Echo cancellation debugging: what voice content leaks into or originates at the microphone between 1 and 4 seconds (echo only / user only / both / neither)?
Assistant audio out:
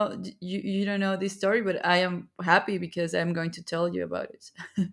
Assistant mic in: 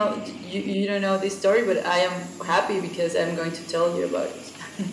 echo only